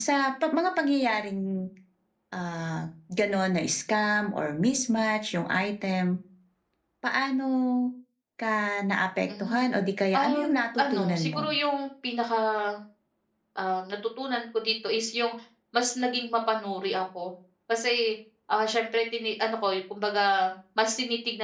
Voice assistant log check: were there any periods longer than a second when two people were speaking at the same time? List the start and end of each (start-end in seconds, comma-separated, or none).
10.1-11.5